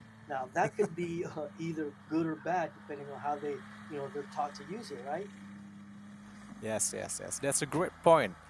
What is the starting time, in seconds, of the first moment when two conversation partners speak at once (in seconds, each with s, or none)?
none